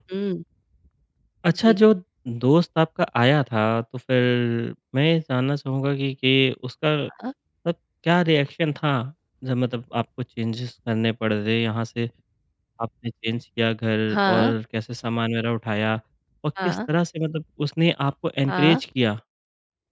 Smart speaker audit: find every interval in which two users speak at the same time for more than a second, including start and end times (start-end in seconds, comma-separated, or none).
none